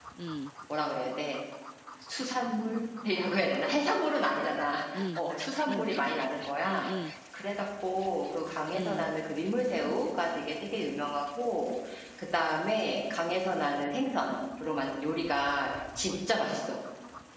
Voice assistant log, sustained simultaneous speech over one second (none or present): none